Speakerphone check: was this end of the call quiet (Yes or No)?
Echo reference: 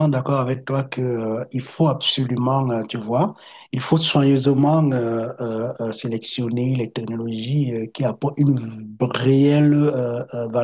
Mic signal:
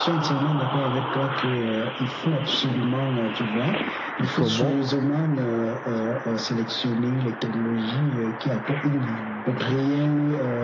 No